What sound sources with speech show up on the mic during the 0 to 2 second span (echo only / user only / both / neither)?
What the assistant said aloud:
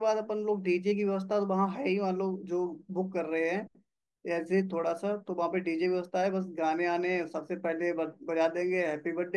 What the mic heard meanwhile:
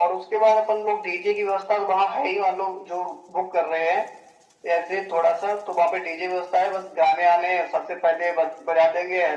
echo only